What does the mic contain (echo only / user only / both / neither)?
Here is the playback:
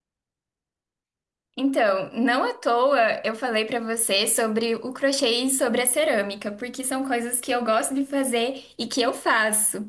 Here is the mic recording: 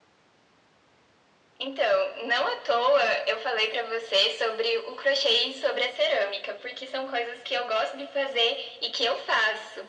echo only